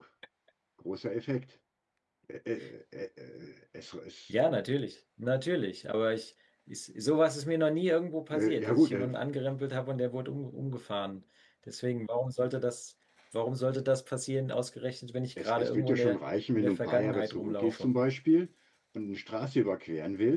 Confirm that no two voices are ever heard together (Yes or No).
No